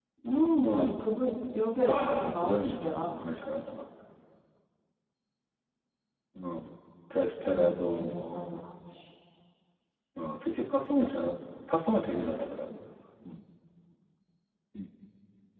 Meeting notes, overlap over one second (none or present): present